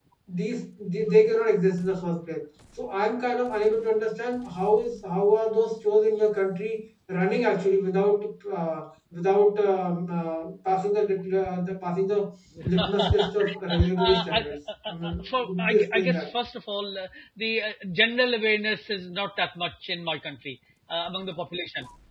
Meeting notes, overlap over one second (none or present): present